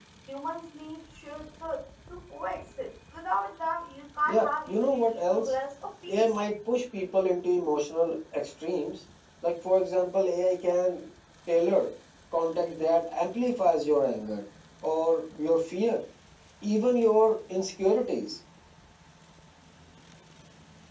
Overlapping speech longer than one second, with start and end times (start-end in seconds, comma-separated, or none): 4.3-5.5